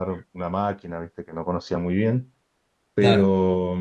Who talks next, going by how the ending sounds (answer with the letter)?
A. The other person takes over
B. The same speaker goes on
B